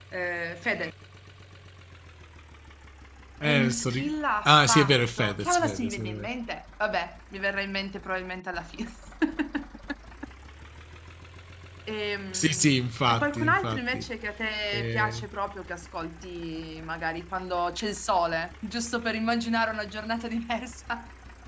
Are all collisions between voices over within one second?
No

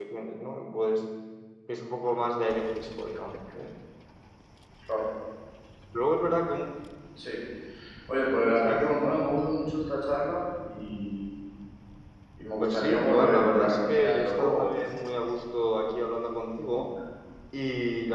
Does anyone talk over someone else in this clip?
Yes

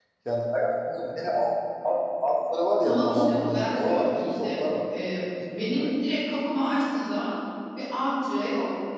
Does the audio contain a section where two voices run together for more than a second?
Yes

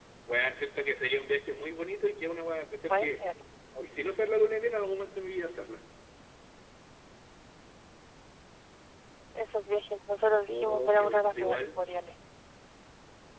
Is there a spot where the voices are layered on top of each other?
Yes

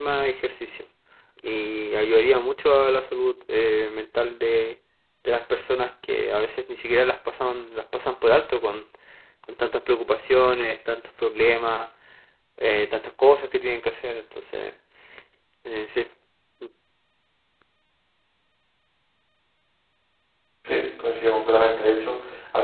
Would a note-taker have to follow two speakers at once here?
No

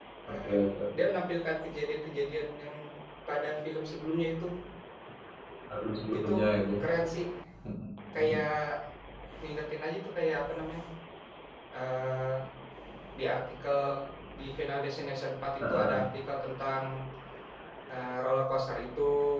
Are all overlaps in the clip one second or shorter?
Yes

